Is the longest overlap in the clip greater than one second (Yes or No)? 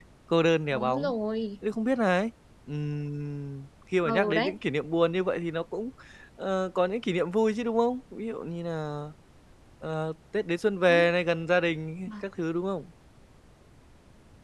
No